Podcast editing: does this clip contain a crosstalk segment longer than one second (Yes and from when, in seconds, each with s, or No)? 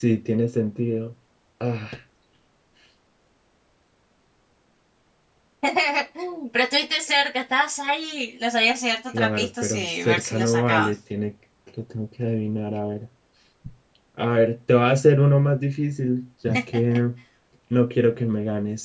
Yes, from 9.1 s